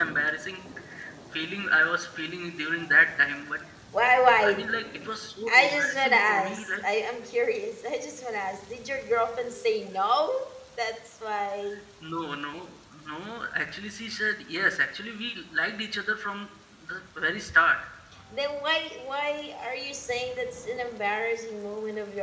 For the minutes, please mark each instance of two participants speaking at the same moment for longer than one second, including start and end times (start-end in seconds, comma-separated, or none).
5.5-6.7